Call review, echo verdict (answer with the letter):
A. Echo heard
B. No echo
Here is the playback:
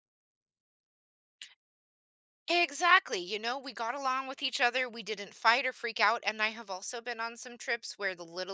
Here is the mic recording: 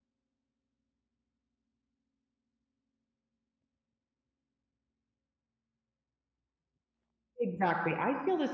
B